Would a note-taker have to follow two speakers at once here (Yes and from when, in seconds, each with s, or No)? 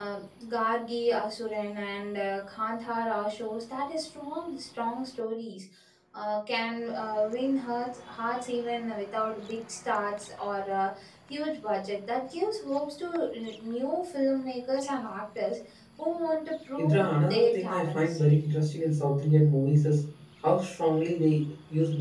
Yes, from 16.8 s